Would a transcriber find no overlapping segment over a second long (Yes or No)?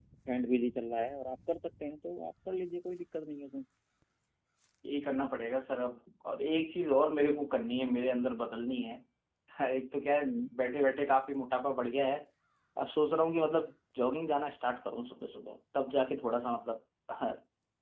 Yes